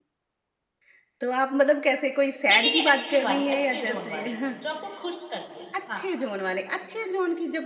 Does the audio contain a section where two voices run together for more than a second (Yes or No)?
Yes